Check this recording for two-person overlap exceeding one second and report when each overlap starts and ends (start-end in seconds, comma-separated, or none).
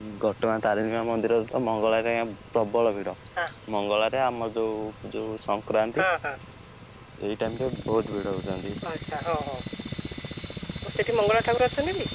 none